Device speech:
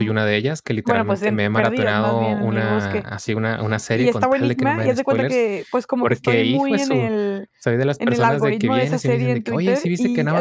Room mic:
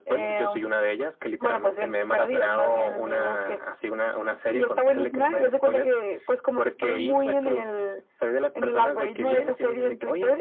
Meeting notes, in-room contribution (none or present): none